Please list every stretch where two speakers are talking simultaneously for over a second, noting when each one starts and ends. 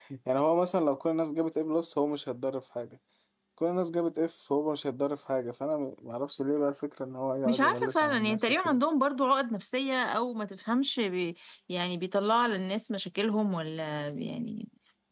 7.5-8.8

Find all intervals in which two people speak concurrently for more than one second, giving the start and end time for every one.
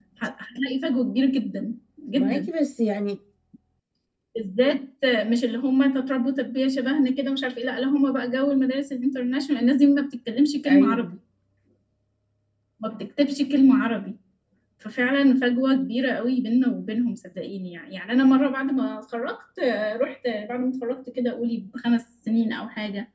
none

